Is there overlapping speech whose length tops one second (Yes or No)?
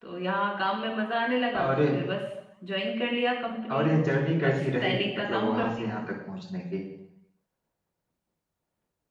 Yes